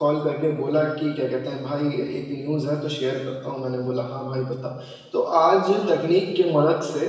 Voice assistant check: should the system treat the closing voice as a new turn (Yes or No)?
No